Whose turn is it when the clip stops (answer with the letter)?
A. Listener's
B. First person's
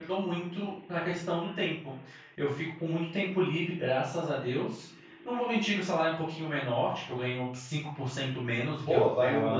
A